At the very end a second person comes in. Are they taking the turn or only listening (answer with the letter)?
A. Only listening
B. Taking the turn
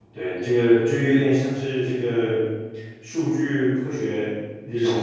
A